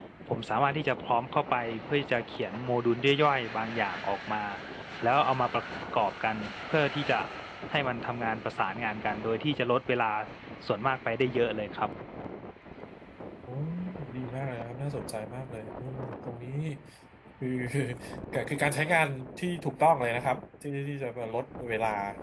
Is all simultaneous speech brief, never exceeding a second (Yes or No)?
Yes